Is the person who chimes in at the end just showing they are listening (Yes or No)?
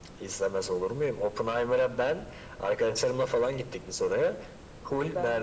Yes